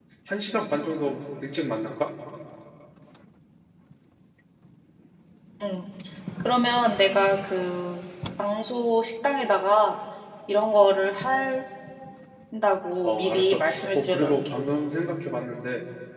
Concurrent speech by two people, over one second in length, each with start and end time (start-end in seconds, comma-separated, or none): 13.0-14.3